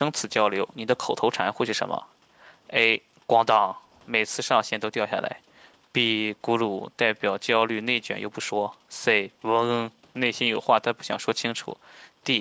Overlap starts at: none

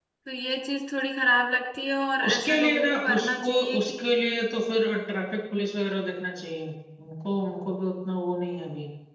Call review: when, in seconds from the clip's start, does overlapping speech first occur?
2 s

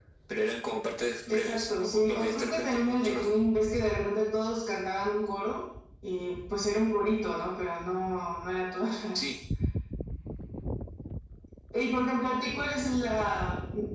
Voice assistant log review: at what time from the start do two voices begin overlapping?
1 s

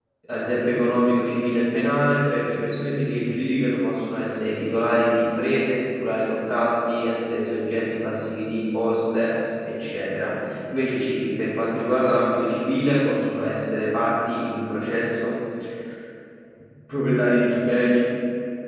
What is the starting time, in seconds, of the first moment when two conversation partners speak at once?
none

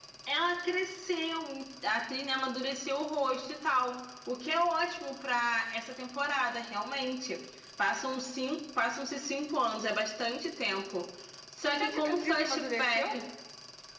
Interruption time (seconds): 12 s

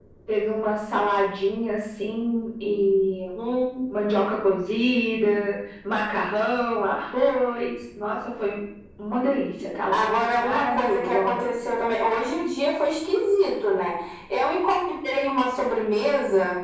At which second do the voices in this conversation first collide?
10 s

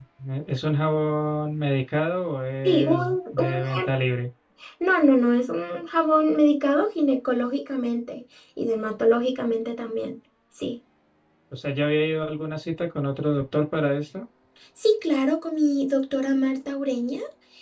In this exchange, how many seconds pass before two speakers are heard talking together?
3 s

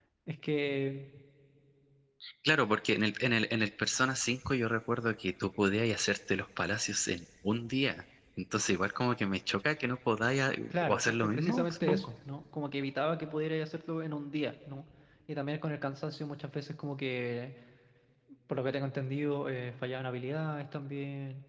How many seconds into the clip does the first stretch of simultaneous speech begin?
11 s

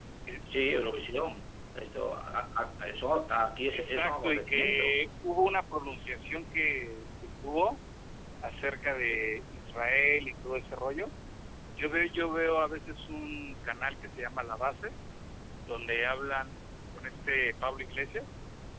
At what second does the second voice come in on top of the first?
4 s

